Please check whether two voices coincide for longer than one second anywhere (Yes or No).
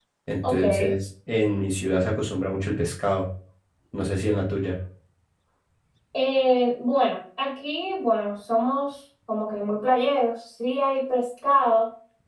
No